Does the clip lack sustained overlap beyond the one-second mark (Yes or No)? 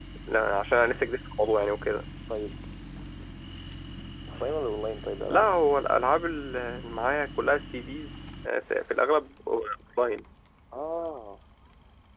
Yes